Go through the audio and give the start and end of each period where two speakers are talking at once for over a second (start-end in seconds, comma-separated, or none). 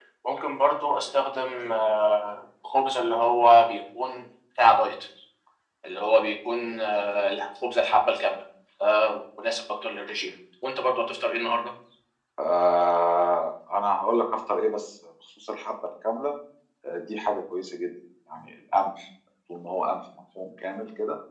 none